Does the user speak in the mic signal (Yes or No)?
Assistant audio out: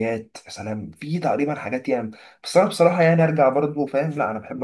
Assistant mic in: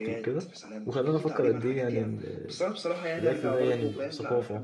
Yes